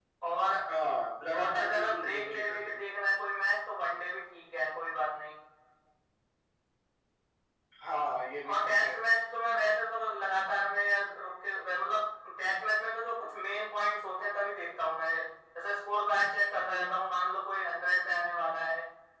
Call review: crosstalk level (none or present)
present